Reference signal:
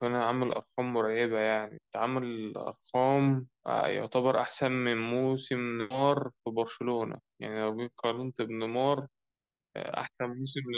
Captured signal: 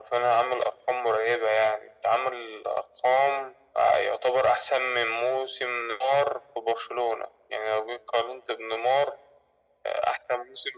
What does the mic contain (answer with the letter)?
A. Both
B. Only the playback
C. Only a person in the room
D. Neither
B